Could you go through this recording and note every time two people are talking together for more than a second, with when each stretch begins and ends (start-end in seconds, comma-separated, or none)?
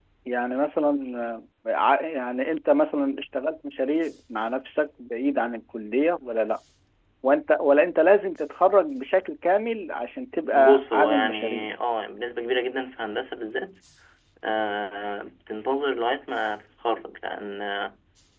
10.4-11.7